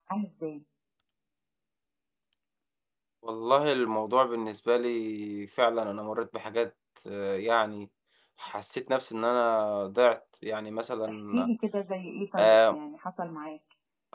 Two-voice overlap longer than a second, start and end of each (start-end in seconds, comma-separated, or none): none